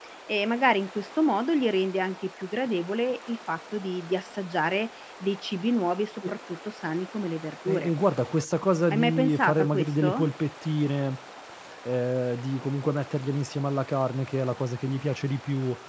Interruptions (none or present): present